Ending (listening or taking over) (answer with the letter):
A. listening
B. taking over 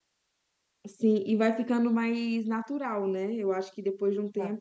A